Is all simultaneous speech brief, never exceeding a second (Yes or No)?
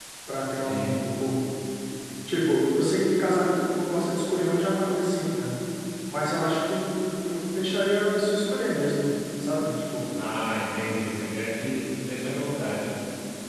Yes